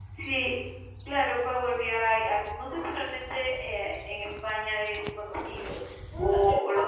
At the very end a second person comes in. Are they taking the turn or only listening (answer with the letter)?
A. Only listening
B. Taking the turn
B